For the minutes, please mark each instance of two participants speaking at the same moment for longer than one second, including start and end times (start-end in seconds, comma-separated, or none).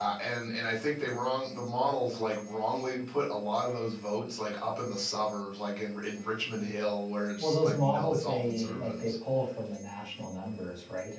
7.4-9.1